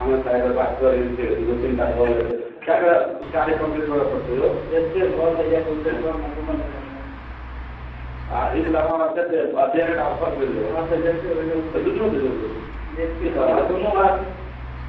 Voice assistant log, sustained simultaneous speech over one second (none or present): none